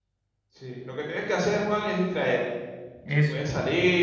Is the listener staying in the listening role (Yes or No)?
Yes